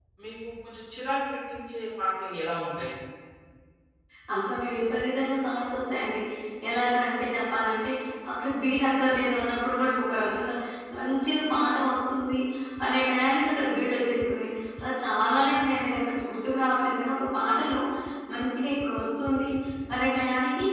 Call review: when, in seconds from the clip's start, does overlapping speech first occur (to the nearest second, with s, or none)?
none